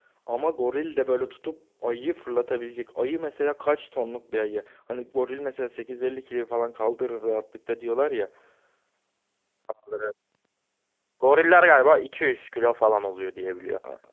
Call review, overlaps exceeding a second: none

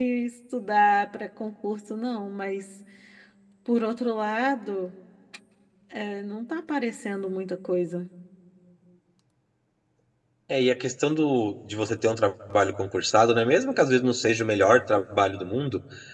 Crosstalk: none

